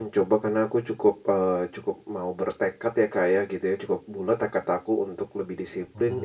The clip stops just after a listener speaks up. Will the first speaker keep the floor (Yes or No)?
Yes